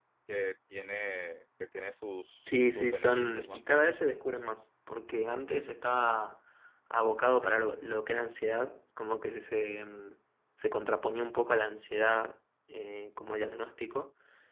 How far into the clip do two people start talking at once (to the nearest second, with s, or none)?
2 s